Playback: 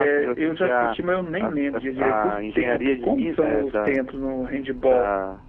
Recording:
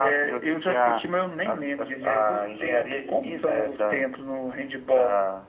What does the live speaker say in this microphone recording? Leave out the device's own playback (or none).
none